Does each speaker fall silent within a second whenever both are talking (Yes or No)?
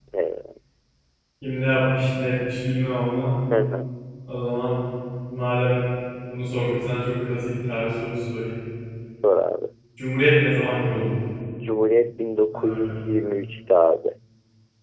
Yes